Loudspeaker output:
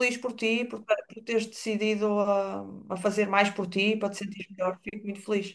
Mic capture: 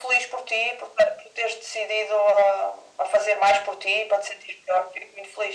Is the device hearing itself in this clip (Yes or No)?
Yes